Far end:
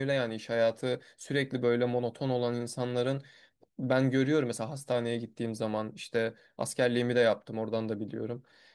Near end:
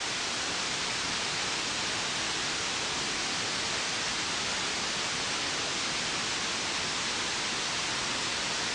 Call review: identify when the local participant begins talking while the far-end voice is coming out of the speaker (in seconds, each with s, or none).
none